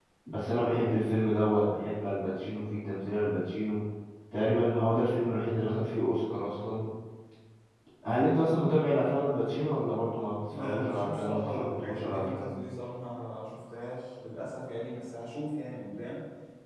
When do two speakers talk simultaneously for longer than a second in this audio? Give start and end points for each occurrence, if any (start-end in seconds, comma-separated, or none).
10.6-12.6